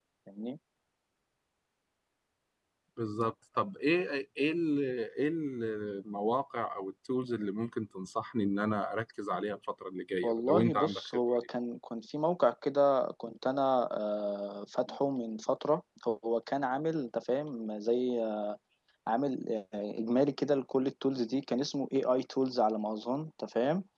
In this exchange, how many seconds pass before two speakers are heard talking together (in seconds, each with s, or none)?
10.2 s